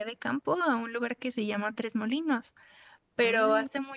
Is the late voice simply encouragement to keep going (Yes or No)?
Yes